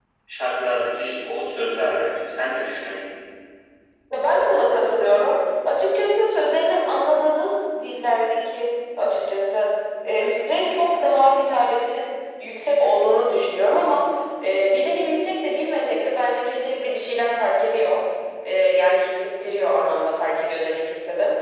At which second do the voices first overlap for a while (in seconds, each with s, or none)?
none